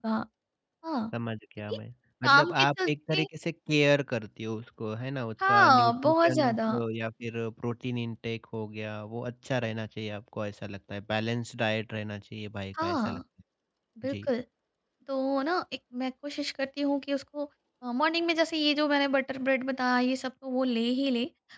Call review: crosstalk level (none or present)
present